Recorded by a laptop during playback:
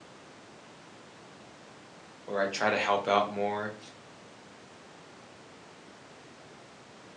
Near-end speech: present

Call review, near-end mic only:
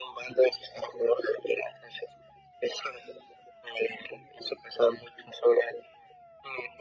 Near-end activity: none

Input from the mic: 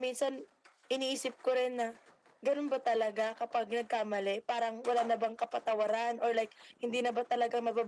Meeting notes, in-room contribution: none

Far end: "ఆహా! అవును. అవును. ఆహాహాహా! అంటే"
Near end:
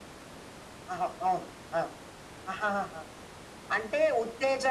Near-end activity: none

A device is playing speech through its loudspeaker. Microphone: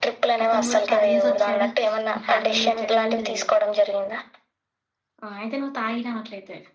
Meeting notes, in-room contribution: present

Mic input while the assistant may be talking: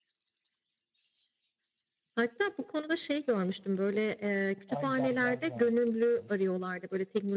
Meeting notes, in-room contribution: present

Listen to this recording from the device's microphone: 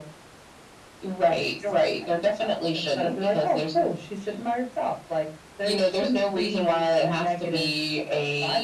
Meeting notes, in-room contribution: none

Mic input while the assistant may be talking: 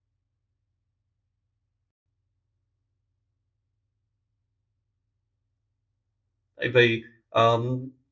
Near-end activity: present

